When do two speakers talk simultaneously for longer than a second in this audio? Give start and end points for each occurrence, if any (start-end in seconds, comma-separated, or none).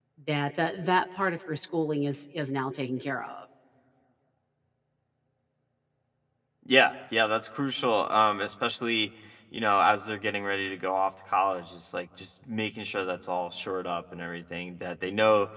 none